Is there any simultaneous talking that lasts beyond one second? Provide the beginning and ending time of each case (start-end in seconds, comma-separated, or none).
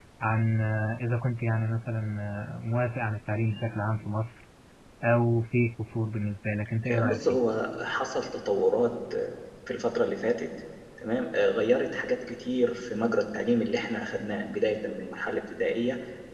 none